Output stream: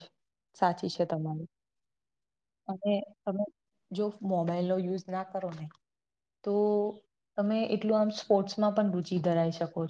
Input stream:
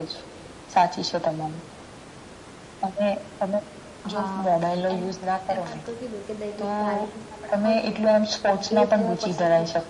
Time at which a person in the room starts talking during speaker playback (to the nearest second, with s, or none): 4 s